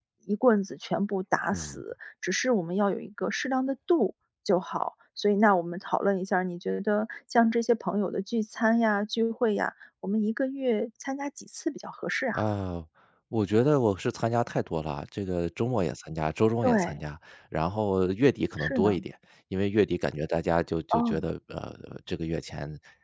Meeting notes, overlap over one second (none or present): none